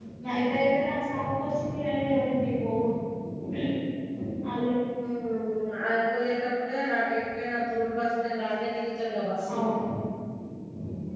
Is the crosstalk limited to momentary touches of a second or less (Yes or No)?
Yes